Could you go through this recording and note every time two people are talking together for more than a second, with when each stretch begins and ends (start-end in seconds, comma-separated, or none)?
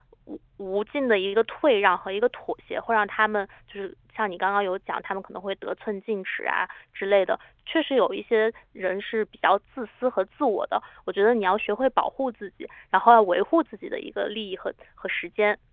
none